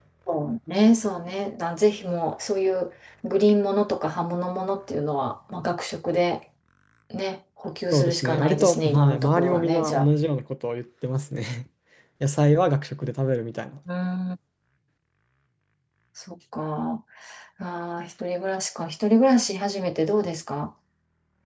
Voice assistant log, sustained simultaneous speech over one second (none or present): present